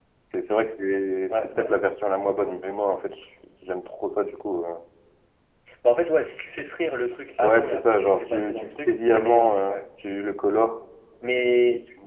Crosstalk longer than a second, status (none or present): present